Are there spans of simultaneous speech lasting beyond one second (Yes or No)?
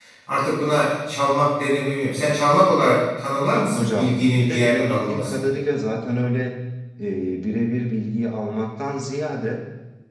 Yes